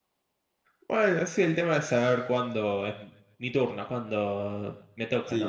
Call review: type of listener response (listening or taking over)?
taking over